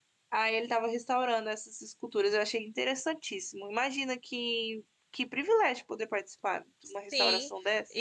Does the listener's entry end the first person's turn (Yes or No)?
Yes